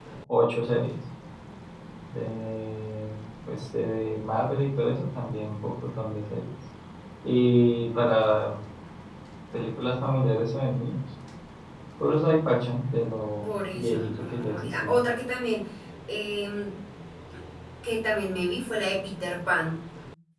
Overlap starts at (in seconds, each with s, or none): 13.4 s